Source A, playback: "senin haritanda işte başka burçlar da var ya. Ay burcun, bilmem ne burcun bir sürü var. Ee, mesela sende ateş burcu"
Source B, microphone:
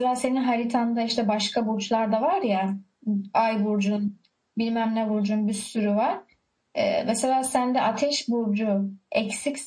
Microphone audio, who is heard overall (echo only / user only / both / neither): echo only